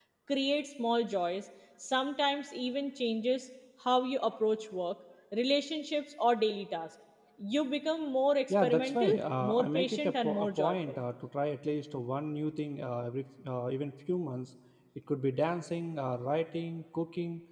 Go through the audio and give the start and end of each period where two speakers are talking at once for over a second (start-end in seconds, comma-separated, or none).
8.5-11.0